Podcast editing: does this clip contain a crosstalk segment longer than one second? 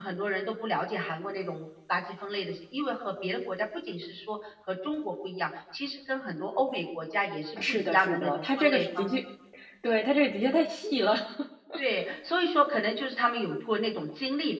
Yes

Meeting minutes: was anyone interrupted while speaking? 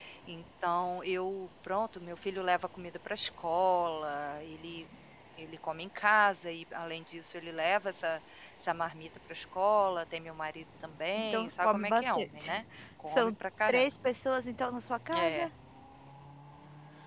Yes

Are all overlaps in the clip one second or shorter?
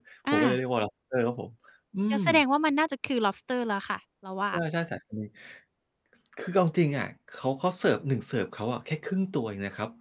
Yes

